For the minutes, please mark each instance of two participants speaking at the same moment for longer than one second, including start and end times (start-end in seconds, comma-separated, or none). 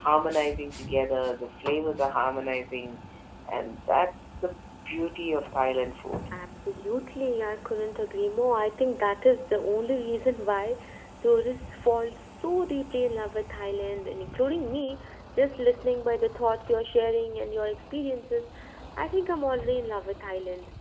none